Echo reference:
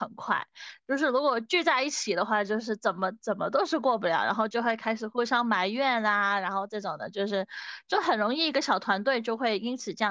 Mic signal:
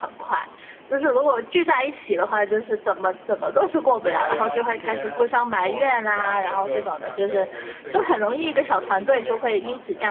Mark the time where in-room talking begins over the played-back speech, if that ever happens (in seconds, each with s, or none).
4.0 s